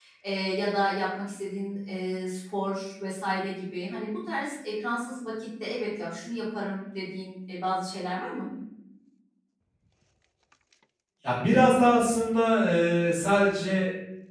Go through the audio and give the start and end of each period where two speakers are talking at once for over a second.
none

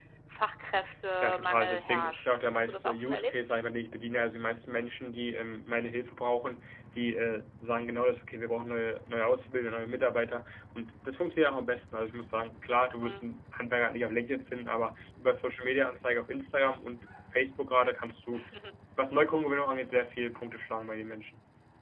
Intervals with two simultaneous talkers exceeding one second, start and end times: 1.2-3.4

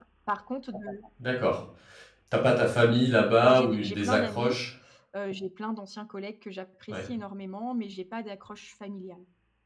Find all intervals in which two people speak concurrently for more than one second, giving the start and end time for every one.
3.4-4.6

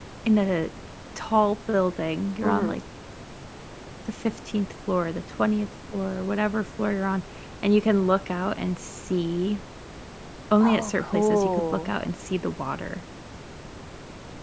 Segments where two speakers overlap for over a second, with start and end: 10.6-11.9

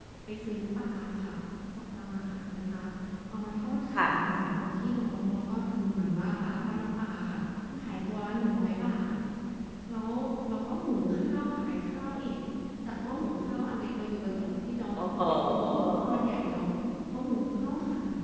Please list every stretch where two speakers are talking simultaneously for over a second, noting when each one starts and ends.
15.0-16.2

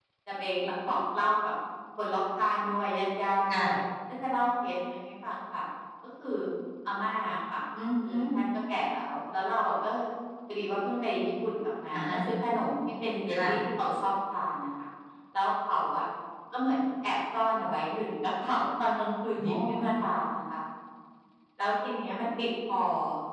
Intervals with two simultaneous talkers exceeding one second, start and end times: none

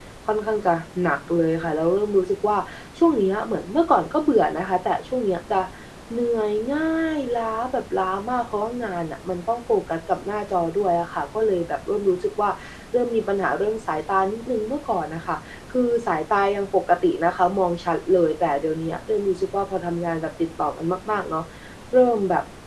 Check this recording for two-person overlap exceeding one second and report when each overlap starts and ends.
none

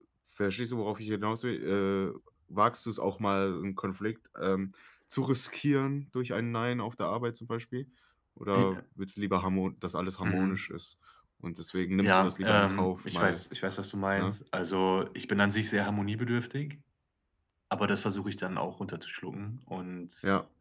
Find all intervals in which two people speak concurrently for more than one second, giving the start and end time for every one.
12.0-13.4

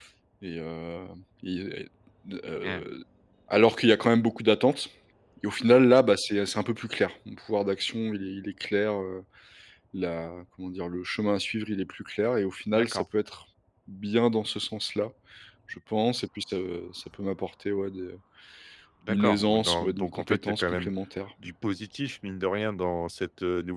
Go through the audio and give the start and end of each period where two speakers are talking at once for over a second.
19.1-20.9

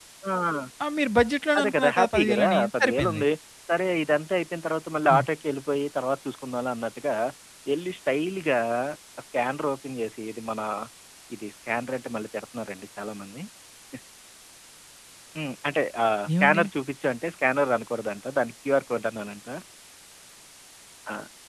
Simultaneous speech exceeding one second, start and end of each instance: 1.6-3.2

